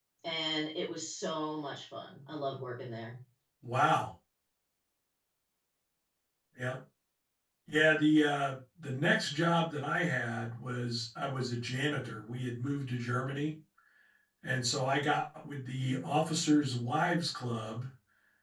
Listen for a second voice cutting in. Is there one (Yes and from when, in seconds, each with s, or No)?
No